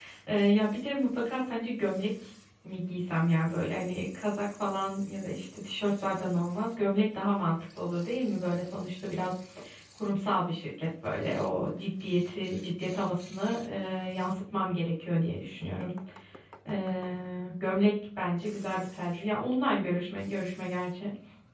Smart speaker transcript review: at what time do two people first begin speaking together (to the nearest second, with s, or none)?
none